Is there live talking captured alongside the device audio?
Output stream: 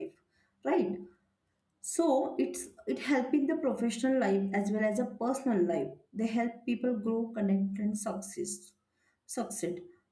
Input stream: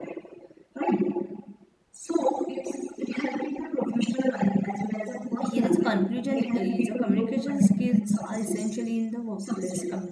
Yes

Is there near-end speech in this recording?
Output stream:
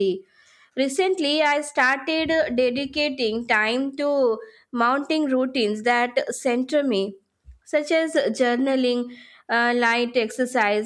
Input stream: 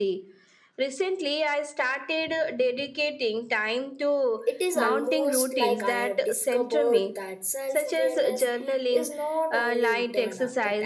Yes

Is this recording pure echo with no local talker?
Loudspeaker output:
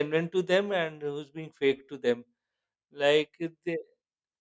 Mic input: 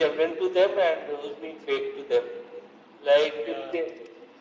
No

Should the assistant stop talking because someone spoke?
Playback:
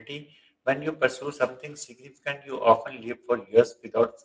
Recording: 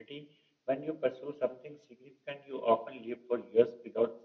No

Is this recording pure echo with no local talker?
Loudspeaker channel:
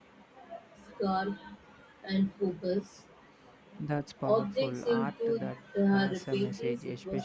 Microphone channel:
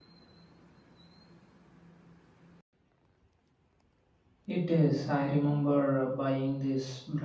No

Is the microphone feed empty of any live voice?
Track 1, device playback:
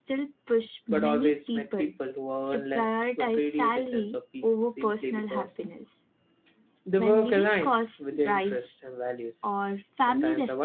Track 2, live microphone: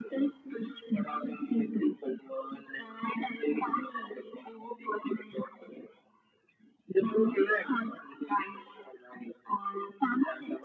Yes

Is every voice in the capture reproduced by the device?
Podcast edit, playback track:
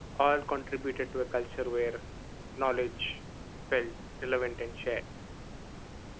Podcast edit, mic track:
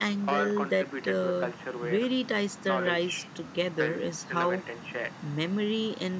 No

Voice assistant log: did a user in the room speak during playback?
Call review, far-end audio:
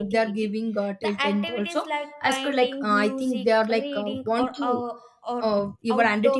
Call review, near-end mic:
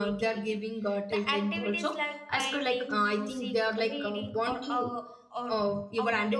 No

